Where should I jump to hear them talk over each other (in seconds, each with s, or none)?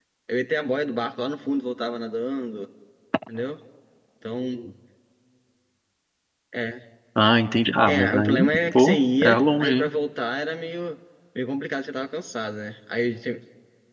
7.8 s